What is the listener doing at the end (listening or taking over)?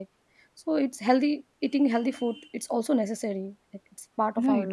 taking over